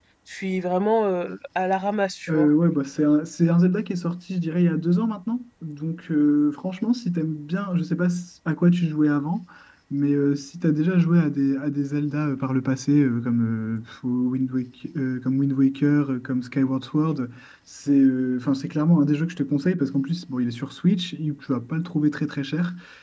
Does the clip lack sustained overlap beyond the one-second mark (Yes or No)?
Yes